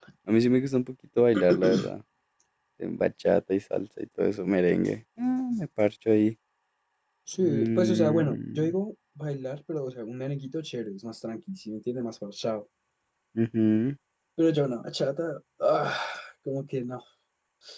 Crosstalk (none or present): present